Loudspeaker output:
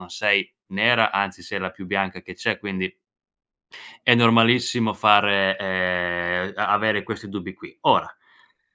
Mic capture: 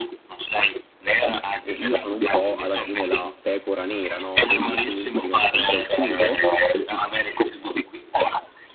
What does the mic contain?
both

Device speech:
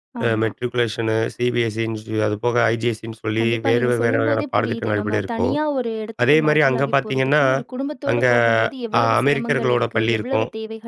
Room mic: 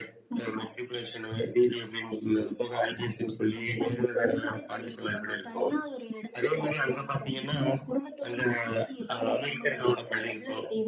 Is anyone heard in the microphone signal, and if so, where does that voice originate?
echo only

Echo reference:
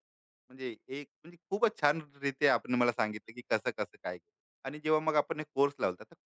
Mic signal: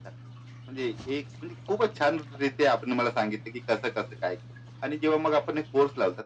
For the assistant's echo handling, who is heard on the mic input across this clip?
echo only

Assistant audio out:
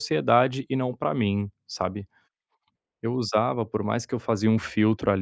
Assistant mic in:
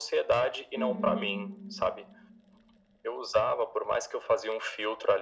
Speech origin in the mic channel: both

